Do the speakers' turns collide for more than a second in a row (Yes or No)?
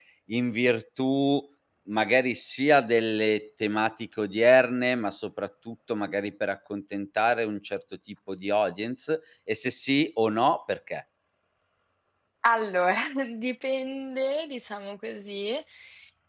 No